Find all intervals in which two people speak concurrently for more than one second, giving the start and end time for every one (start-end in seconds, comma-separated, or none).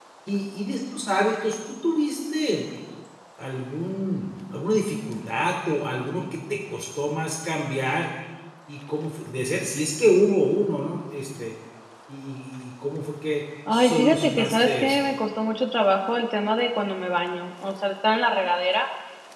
13.7-15.0